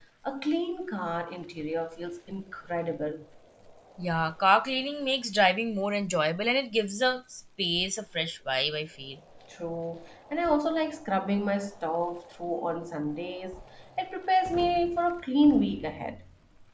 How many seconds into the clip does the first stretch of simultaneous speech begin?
none

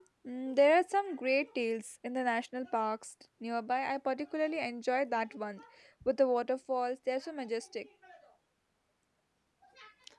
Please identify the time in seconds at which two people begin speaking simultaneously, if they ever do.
none

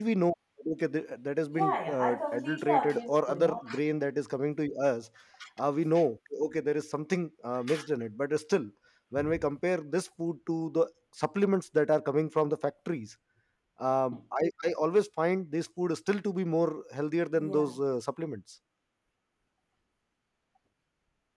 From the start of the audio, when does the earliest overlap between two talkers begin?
1.5 s

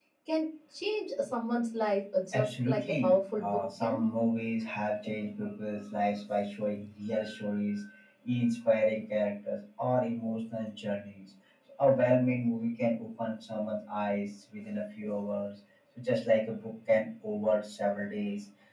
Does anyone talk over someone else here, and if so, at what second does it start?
2.3 s

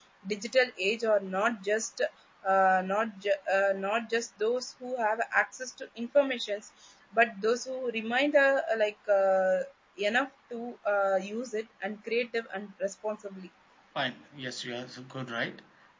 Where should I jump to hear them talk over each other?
none

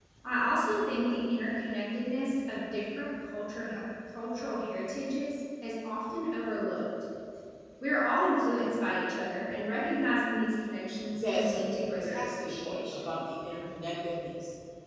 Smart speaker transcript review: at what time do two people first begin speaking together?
11.2 s

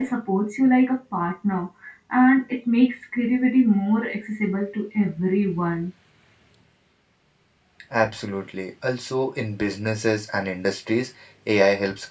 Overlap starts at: none

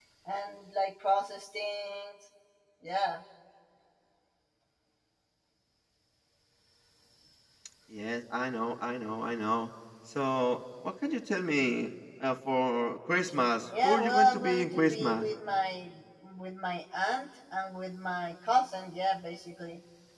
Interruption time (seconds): 13.7 s

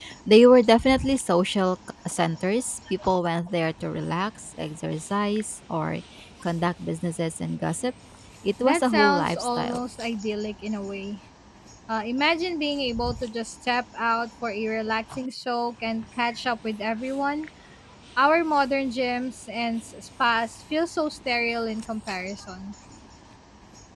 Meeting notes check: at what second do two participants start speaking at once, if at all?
8.6 s

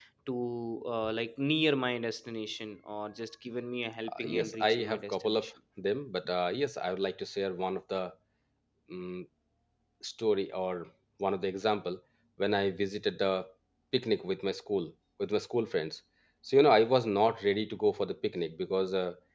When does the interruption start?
4.1 s

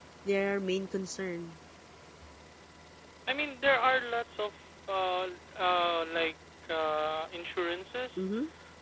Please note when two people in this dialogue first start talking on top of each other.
none

